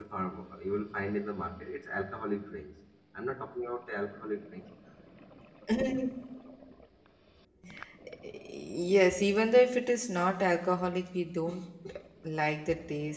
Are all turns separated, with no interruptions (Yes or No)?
Yes